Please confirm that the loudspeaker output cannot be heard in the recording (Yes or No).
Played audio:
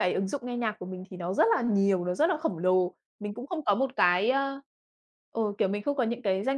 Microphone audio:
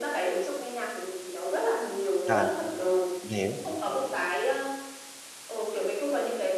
No